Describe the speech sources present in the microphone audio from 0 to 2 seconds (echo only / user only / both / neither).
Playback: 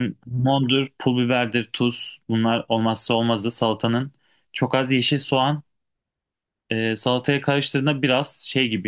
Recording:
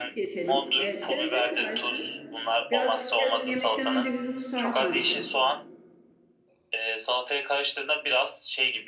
both